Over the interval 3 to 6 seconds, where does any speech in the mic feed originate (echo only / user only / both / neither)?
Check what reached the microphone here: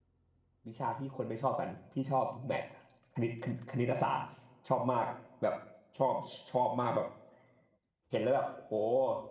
user only